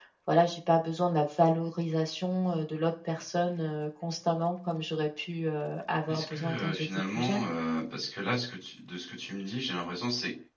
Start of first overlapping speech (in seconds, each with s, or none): 6.1 s